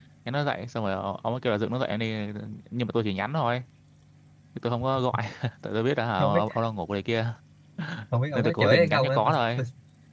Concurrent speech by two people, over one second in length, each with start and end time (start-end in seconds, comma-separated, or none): 8.3-9.6